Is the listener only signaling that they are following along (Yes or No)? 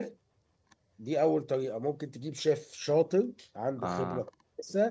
Yes